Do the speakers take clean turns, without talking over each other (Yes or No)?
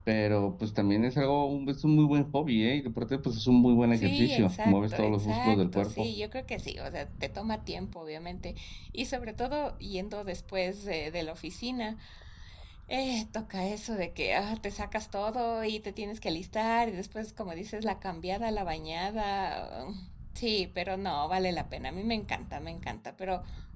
No